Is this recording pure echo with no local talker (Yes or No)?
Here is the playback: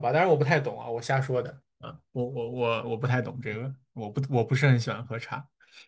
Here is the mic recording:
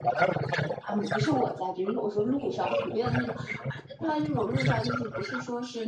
No